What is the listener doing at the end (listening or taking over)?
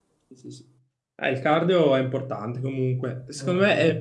listening